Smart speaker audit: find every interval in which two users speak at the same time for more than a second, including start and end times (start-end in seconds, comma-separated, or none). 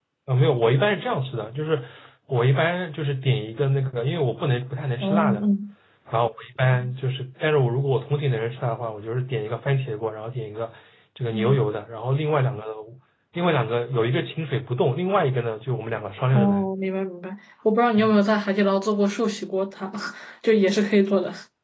none